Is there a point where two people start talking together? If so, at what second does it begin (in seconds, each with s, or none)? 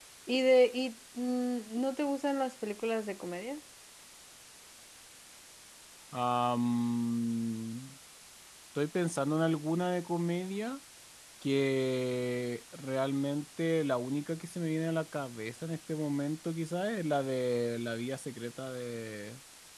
none